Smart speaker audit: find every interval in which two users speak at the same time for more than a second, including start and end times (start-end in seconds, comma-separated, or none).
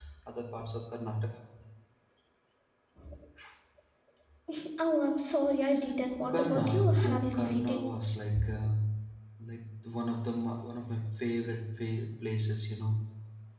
6.2-7.8